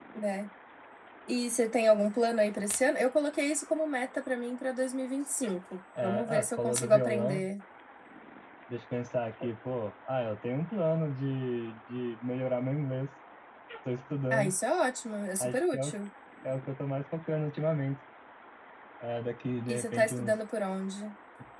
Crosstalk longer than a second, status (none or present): present